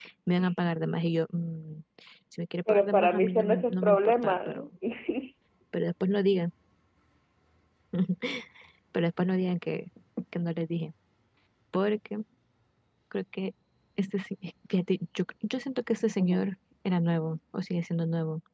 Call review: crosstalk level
present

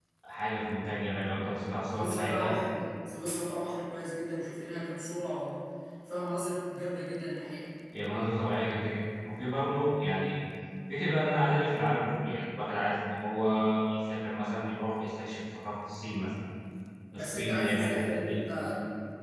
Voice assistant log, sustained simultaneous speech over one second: present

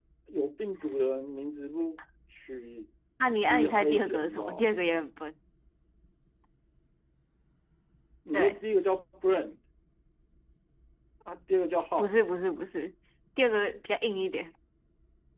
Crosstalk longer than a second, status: present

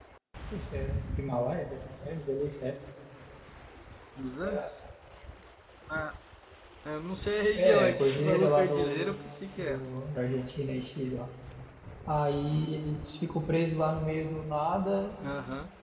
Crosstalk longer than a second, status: present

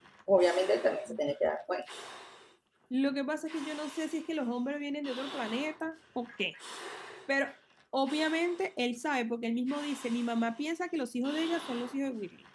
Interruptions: none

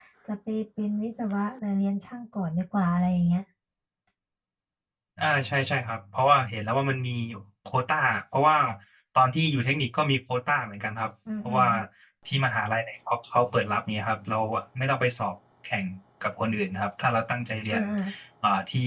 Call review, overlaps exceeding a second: none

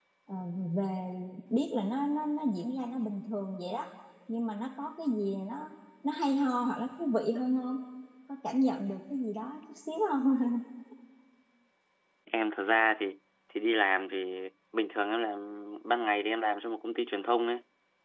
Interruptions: none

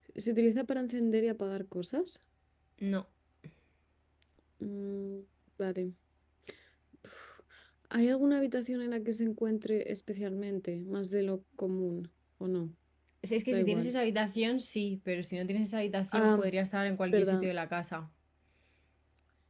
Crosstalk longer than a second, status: none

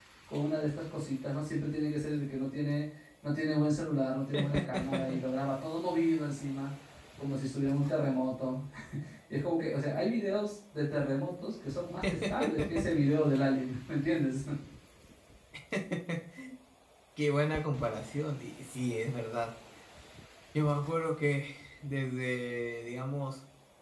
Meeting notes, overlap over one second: none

